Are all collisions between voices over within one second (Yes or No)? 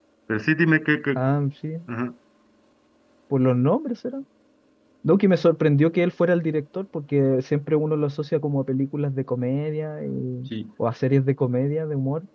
Yes